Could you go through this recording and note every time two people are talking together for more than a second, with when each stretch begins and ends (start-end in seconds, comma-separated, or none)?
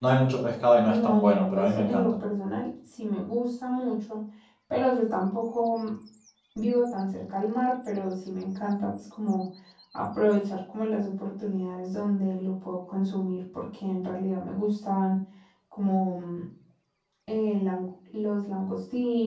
0.9-2.1